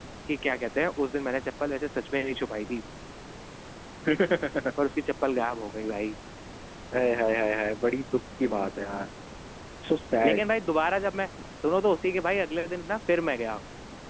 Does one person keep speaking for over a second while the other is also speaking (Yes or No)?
No